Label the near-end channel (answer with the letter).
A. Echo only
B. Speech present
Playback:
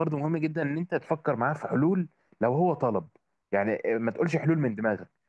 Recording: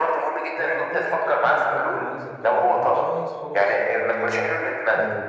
B